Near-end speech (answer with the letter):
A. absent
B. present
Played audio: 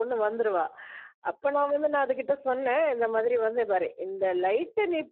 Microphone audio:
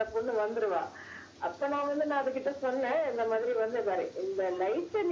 A